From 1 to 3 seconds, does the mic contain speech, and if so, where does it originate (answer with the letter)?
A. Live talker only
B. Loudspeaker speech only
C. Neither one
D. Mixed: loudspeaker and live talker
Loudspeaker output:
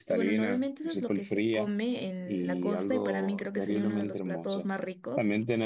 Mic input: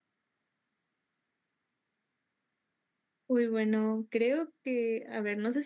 C